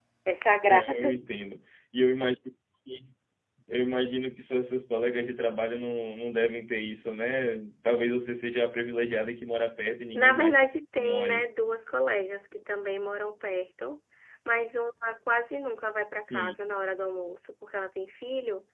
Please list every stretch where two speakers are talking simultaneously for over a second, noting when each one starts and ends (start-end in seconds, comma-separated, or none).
10.1-11.4